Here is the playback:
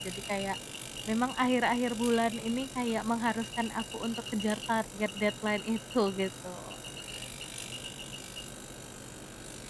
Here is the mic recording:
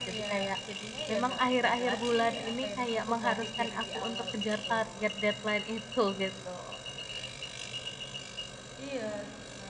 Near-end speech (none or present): present